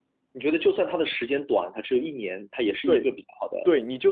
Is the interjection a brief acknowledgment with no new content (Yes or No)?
No